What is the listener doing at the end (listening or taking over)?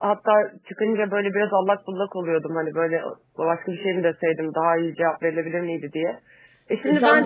taking over